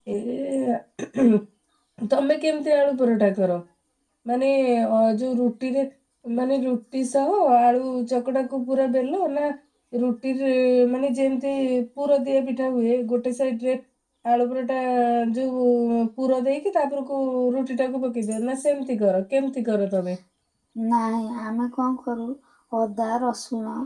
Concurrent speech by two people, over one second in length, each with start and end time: none

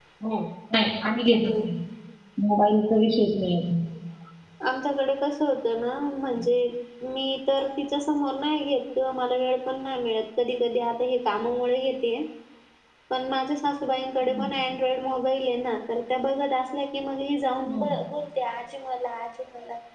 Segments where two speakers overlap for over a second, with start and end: none

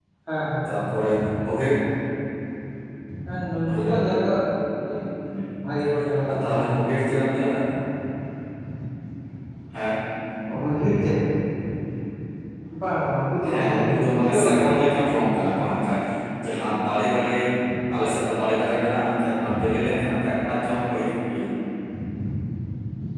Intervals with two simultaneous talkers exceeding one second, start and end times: 13.5-15.1

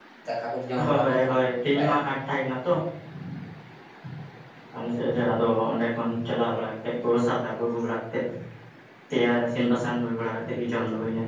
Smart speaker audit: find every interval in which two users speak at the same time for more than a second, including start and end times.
0.8-2.1

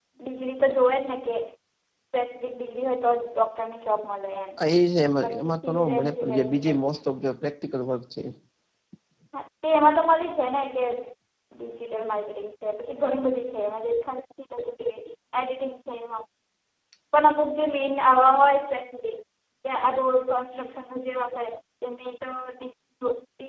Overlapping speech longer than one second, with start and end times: 5.2-6.7

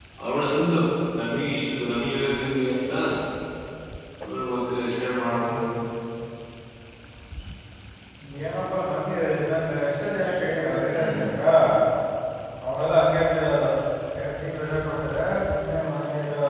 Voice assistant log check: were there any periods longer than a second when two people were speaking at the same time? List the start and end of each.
none

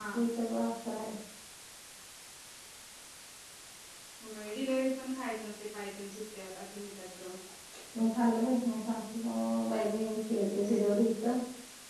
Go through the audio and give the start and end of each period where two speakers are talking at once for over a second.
none

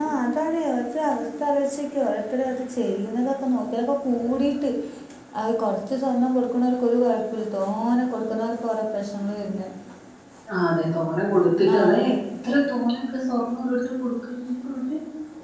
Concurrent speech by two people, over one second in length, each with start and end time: none

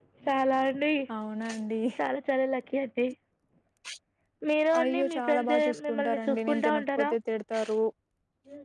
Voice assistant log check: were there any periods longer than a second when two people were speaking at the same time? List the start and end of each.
4.8-7.1

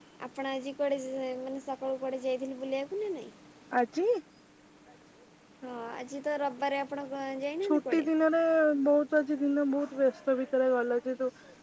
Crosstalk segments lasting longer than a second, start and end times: none

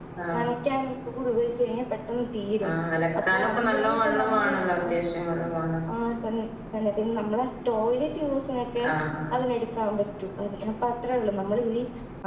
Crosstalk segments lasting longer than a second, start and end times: 3.3-4.9

